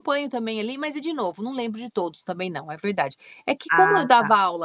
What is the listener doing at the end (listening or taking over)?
listening